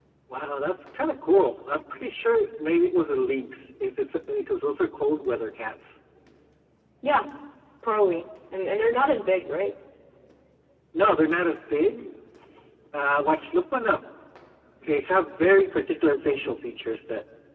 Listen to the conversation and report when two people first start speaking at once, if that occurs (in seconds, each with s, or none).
none